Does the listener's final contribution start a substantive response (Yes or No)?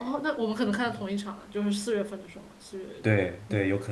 Yes